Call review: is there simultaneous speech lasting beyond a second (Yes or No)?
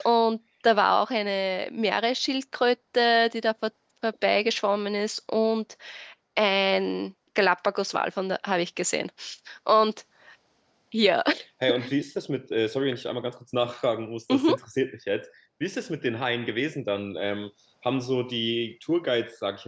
No